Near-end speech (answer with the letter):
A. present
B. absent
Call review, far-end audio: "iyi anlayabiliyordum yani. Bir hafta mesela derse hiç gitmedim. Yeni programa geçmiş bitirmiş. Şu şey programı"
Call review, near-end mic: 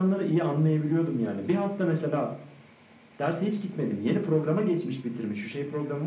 B